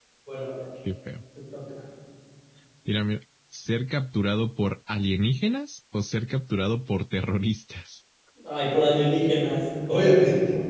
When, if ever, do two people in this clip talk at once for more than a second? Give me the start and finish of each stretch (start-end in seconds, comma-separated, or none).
none